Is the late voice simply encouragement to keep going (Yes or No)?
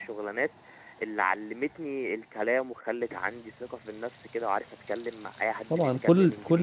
No